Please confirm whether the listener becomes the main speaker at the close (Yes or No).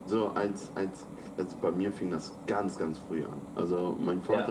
No